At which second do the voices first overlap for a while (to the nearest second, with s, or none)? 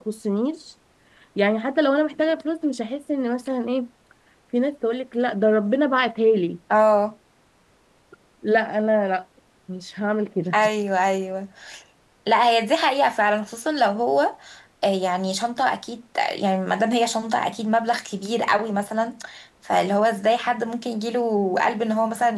none